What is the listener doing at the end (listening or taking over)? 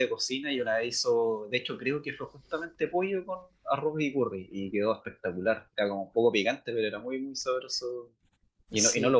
listening